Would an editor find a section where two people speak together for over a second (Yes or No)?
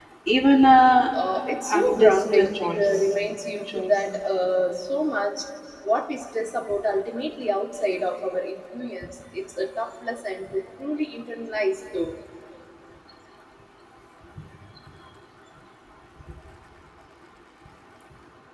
Yes